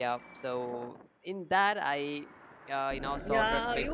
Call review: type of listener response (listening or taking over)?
taking over